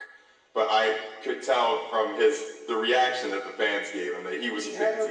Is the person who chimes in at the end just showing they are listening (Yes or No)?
No